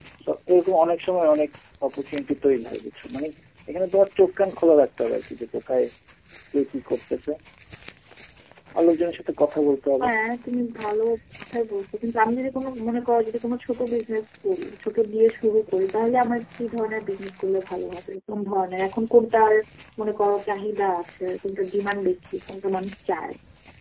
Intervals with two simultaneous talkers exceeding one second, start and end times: none

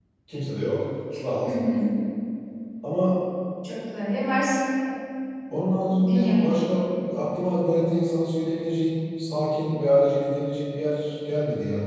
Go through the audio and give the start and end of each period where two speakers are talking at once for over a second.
none

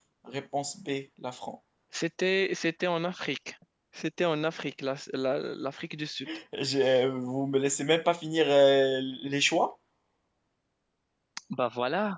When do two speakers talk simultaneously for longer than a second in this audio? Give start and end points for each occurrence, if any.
none

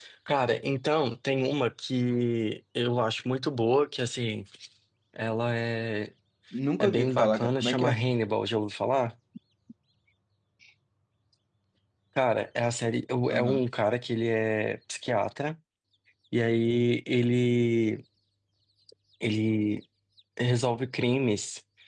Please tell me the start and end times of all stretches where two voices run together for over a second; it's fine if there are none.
6.8-8.0

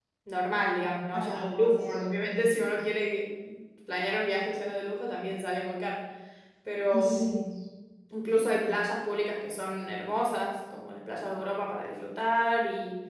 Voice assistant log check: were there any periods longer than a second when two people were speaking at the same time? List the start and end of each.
1.1-2.6

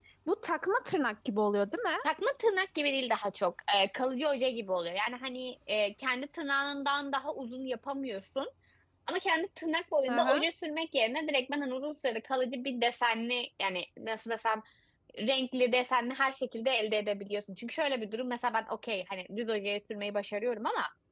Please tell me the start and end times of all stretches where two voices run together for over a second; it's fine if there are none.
none

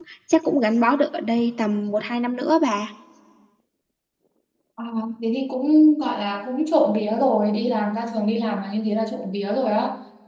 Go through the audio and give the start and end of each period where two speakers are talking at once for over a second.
none

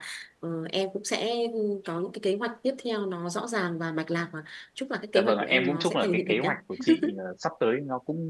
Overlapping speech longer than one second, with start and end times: 5.2-6.5

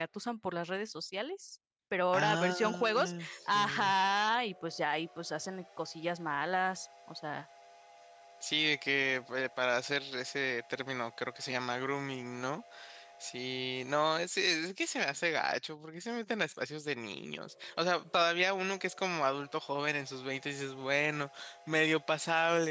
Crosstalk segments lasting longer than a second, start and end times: 2.1-3.9

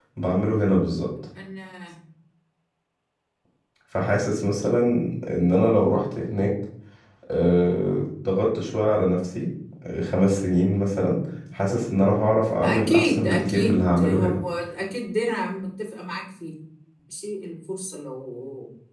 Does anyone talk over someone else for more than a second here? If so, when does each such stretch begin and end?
12.6-14.4

